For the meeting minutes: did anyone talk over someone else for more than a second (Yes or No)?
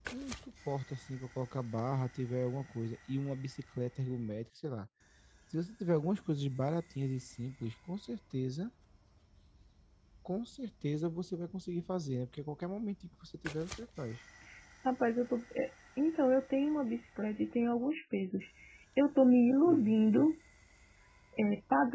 No